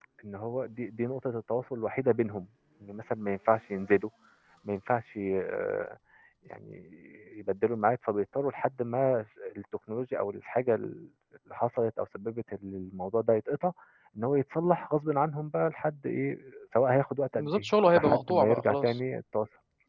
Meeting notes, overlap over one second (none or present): present